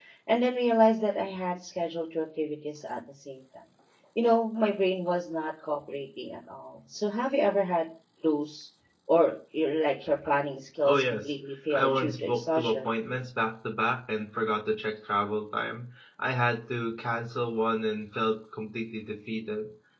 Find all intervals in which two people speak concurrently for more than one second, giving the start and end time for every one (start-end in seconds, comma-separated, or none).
11.7-12.9